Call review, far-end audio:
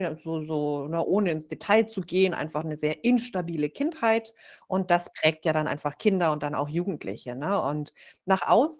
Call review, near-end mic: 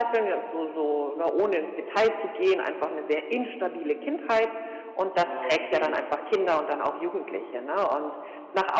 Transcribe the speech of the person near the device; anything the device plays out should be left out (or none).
Okay, interessant.